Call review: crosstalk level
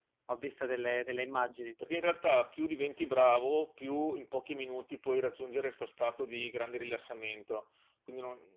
none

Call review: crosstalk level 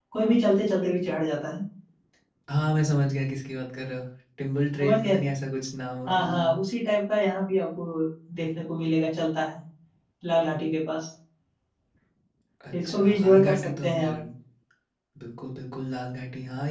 present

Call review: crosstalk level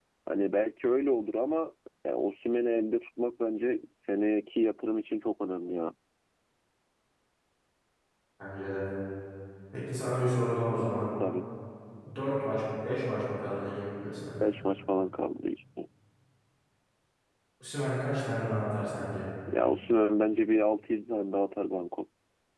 none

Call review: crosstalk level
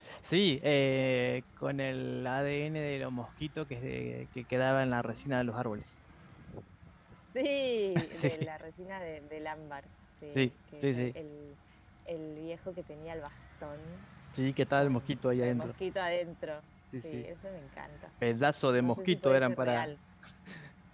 present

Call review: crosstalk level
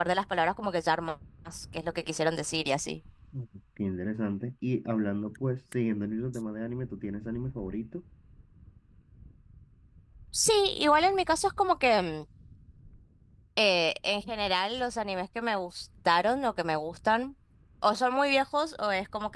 none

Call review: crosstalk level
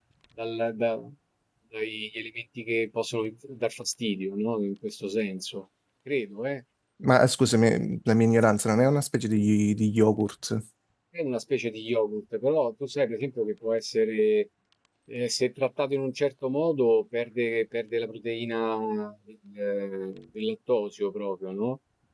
none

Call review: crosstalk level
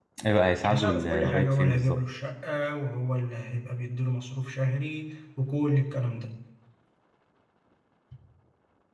present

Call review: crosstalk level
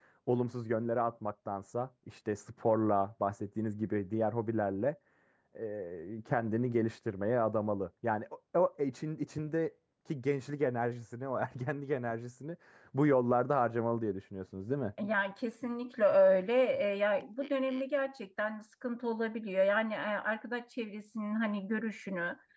none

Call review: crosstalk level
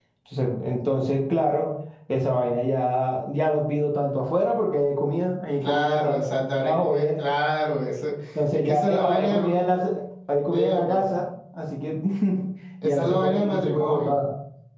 present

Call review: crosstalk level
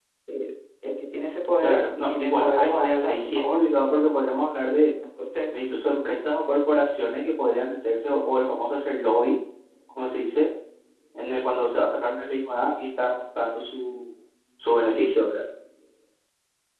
present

